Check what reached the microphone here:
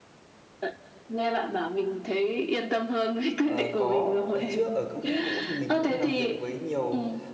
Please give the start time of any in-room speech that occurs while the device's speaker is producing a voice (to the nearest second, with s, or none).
3 s